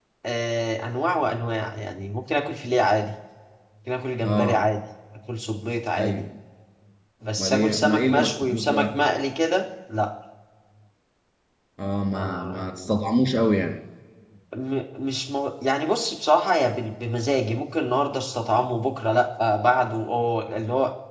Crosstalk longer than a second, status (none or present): present